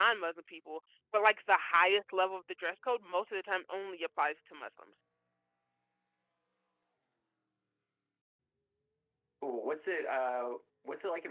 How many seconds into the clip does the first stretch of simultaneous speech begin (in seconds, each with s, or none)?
none